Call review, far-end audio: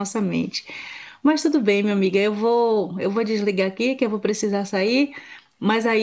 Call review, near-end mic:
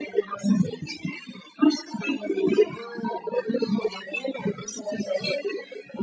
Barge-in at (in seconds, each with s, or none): none